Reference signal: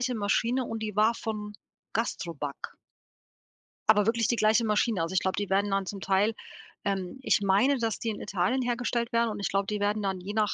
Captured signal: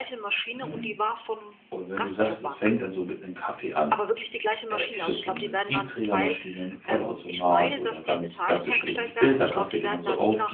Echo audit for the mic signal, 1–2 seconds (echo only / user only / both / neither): both